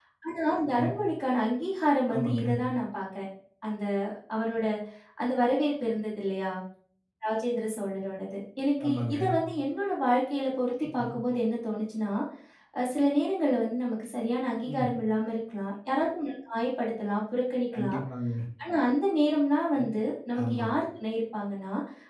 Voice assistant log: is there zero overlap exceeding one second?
Yes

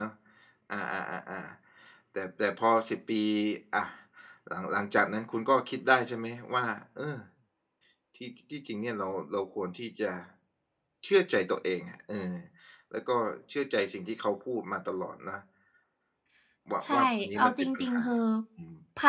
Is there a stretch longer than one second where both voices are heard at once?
Yes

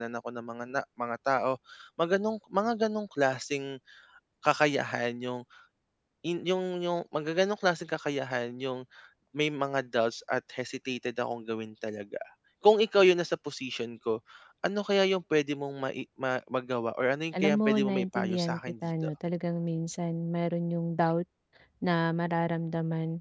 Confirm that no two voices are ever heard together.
No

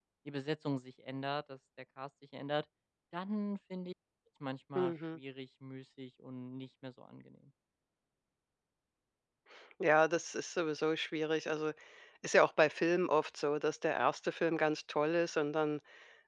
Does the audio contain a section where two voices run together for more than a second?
No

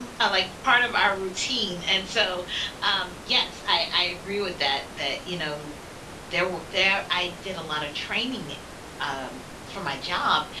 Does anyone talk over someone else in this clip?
No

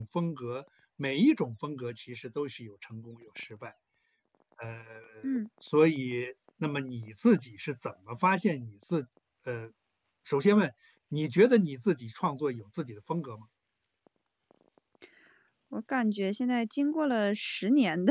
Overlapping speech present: No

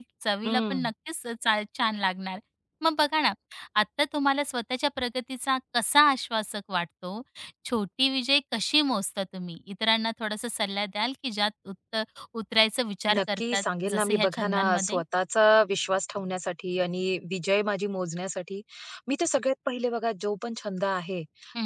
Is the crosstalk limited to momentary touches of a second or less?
No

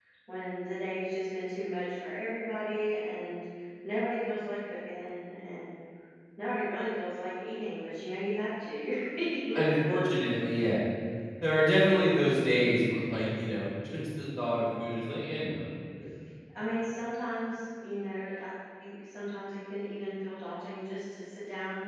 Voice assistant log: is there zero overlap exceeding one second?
Yes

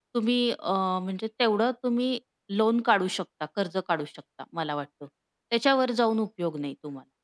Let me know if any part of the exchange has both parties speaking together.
No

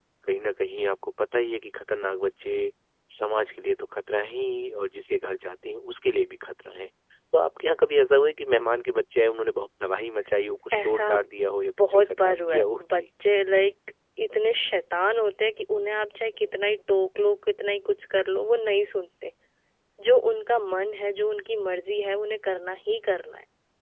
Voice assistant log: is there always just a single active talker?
No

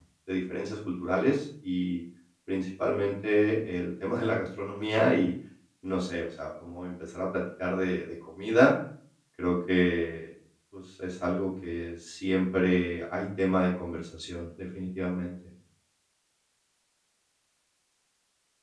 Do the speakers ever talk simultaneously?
No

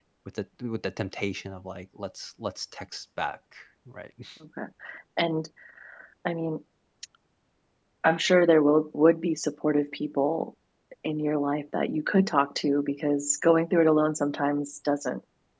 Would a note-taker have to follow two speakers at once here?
No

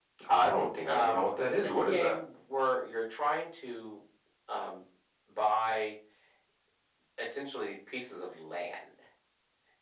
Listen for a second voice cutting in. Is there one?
Yes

